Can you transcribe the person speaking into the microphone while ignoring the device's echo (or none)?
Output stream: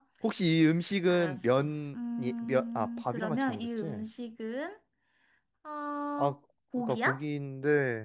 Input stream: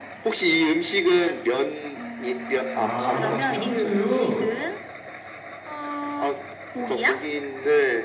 아, 탕수육.